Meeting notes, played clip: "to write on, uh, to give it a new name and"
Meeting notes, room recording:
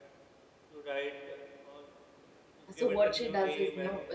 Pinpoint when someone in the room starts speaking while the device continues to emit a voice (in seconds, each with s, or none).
2.8 s